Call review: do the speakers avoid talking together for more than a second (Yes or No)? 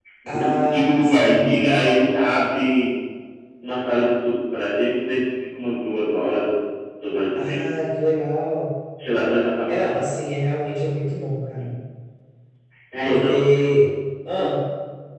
No